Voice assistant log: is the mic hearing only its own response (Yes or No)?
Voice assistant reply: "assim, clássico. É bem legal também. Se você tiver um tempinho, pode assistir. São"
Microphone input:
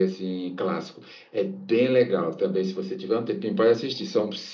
Yes